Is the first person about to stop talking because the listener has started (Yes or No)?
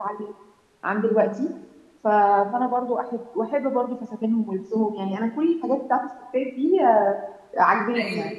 No